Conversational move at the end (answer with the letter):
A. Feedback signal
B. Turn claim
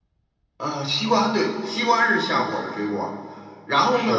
A